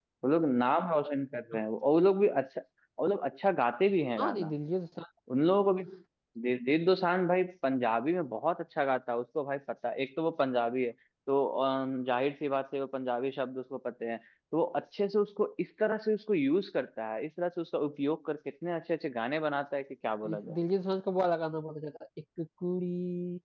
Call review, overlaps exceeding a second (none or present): none